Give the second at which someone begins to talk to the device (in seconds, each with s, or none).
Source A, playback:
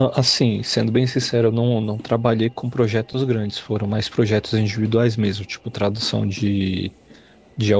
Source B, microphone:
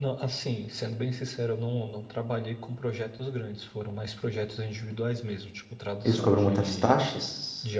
6.0 s